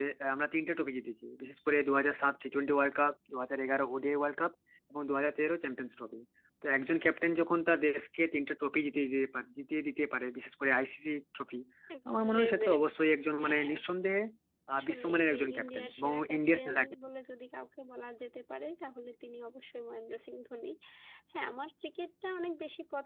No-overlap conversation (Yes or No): No